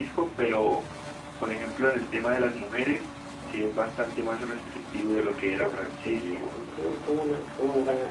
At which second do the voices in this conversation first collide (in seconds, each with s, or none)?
5.1 s